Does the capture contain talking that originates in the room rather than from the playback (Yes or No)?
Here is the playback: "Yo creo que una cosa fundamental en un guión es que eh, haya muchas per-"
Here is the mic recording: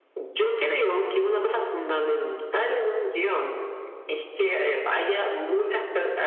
No